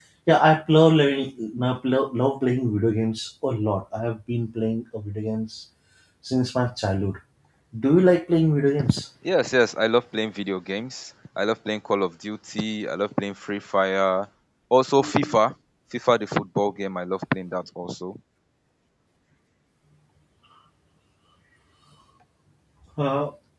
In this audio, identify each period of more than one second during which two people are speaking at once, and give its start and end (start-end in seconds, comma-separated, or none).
none